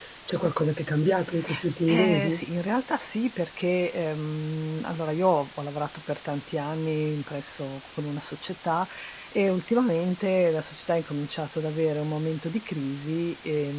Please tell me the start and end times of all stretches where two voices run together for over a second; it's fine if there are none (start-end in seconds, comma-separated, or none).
none